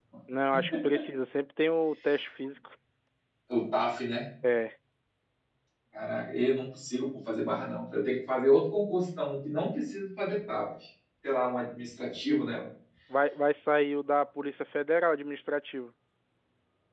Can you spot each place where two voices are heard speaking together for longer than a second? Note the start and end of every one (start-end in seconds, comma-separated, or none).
none